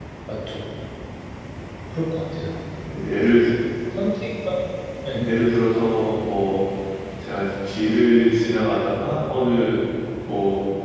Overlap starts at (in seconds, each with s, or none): none